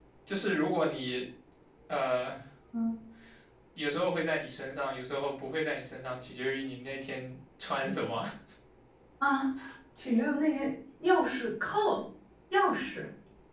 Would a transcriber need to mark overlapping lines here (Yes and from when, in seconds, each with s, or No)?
No